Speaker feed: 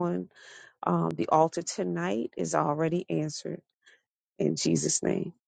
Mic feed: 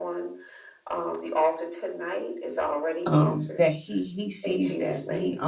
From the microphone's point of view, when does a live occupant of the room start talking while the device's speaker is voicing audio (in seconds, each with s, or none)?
3.1 s